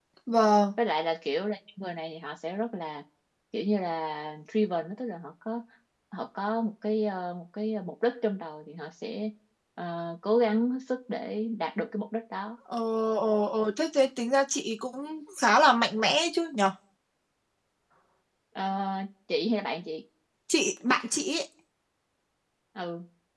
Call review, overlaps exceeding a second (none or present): none